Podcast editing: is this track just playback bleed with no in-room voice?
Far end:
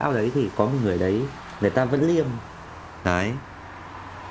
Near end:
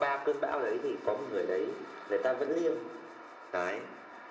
Yes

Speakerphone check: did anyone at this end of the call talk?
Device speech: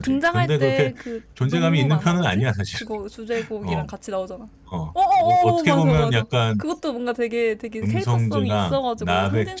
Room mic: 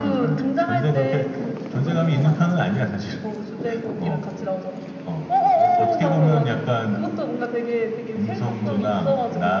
No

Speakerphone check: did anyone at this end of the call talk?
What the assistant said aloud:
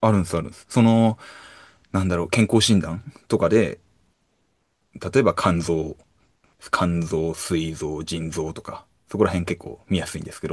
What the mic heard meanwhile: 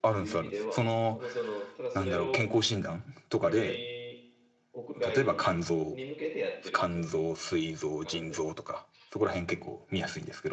Yes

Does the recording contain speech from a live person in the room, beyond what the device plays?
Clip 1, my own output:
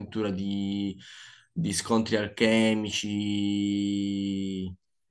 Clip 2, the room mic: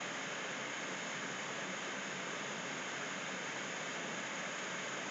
No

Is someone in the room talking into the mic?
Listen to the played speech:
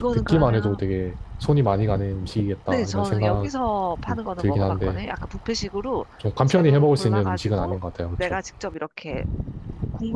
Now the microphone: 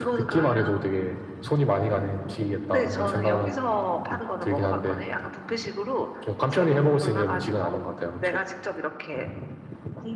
No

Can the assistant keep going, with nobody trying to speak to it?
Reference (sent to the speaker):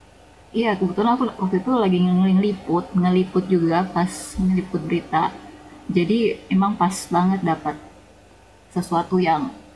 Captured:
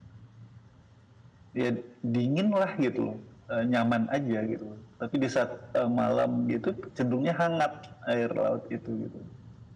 No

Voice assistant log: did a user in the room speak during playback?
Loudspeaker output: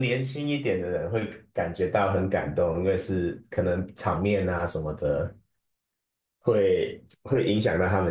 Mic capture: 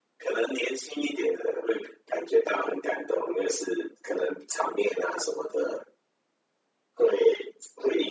No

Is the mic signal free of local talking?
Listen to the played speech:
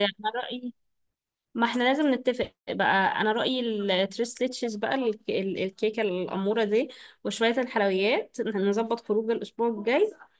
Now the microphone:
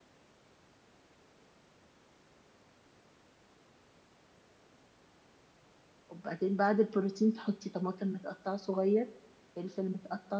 No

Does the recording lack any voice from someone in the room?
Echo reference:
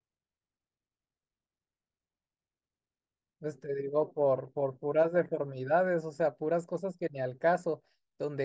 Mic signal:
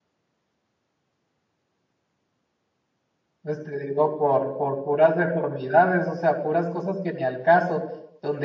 Yes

